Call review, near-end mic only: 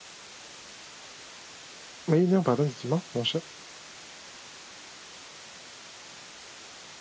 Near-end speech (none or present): present